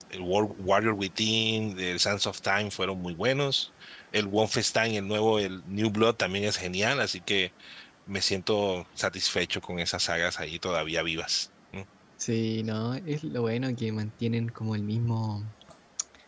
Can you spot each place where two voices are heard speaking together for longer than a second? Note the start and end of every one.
none

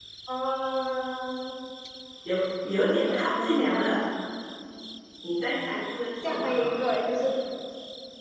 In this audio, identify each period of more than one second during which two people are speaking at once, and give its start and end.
2.7-4.0

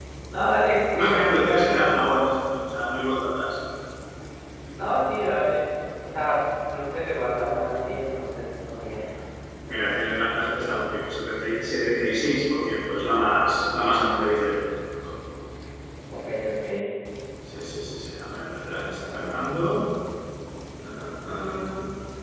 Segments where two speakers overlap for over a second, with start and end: 0.9-2.3

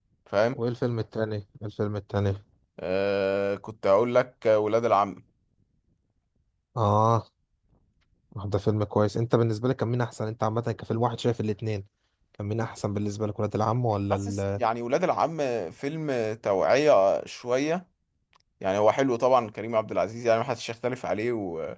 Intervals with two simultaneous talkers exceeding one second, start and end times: none

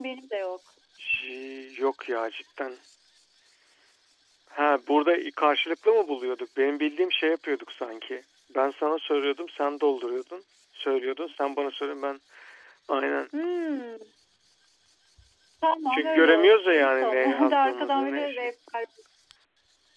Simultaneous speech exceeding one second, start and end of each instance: 15.9-18.5

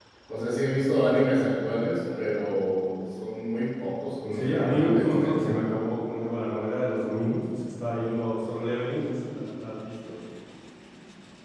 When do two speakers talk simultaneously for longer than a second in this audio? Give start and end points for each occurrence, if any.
4.3-5.6

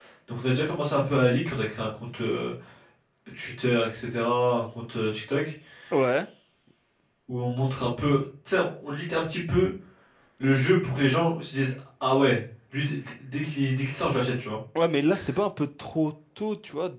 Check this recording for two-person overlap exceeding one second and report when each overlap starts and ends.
none

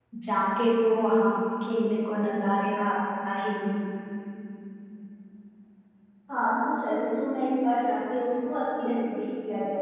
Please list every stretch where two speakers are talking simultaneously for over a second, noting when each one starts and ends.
none

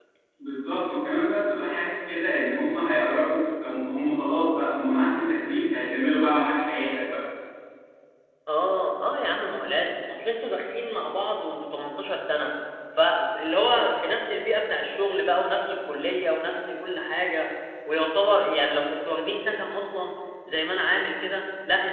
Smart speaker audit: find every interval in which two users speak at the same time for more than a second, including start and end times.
none

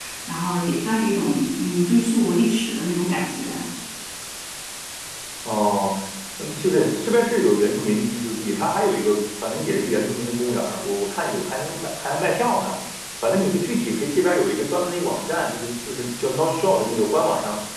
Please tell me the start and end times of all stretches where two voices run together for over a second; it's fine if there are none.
none

